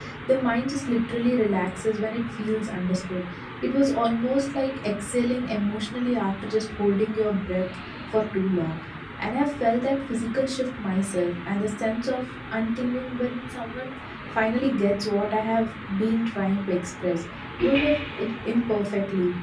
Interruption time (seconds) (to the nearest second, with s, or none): none